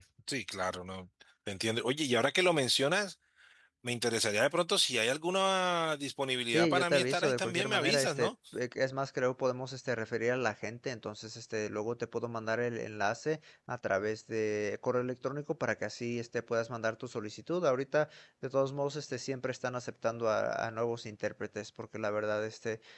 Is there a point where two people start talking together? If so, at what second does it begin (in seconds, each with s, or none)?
6.5 s